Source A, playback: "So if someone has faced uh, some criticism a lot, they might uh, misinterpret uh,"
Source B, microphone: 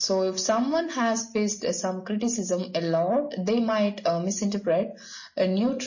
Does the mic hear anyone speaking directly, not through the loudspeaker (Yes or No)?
No